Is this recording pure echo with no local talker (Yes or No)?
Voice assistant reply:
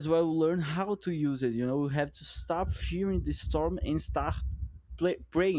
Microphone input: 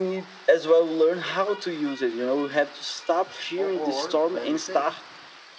No